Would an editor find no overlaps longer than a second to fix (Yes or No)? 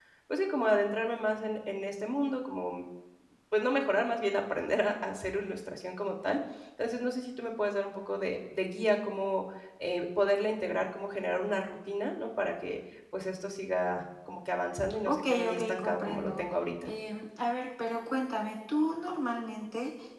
No